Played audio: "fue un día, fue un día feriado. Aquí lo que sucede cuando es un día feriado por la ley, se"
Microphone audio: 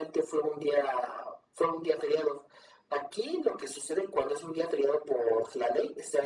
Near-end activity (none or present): none